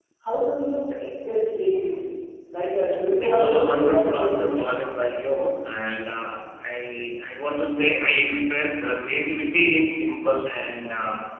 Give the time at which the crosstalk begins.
3 s

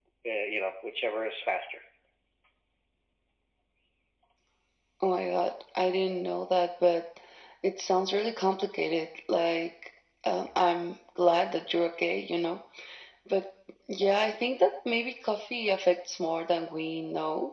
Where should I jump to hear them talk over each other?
none

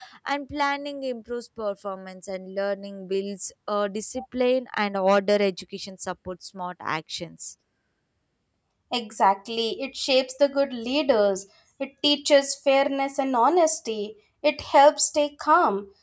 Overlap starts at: none

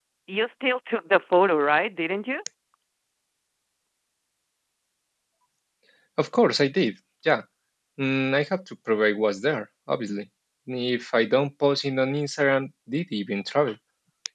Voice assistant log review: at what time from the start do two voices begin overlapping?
none

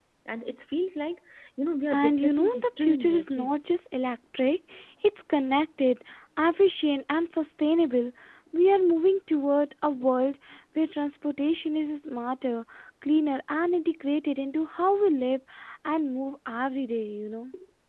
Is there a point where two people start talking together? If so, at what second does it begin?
2 s

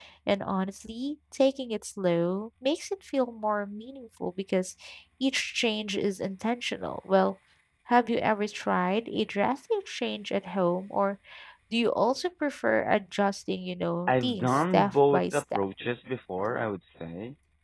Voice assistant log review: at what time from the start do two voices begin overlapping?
14 s

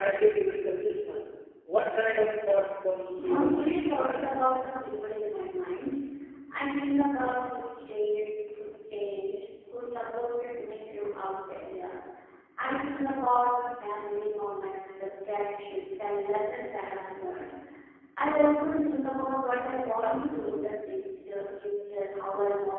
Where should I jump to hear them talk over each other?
3 s

